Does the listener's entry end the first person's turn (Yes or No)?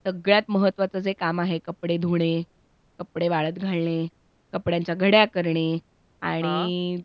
No